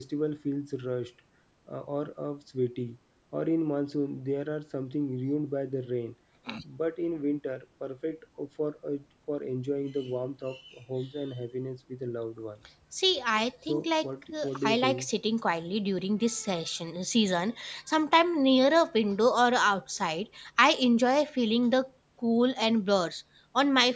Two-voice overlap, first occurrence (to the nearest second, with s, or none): 14 s